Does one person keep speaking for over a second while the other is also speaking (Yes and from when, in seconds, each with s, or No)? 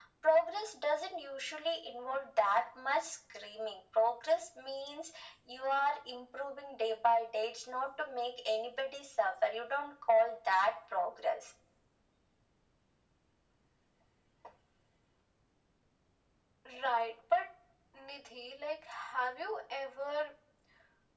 No